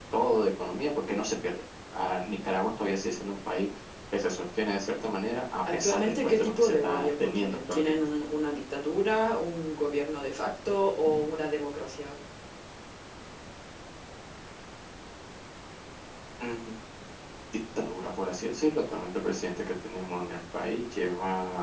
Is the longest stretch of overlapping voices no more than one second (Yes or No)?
No